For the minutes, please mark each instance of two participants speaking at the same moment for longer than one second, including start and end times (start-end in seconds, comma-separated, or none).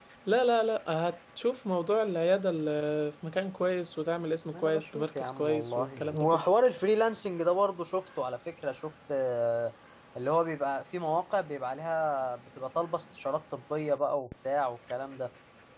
4.5-6.5